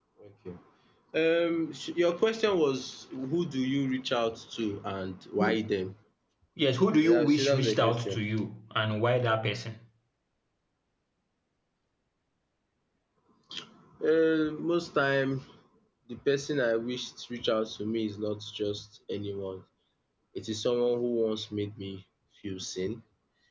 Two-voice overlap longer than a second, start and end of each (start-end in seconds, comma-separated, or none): 7.0-8.2